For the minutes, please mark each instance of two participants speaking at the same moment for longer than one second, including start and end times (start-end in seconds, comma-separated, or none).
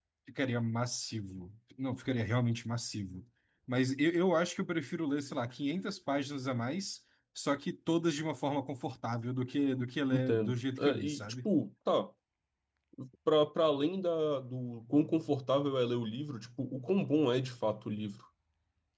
10.1-11.5